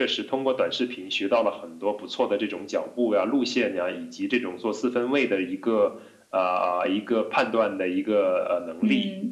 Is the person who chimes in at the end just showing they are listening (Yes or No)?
No